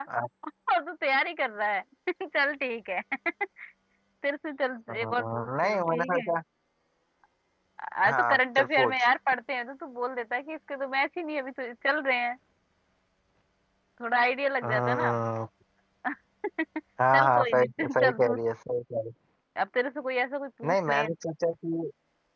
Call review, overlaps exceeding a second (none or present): present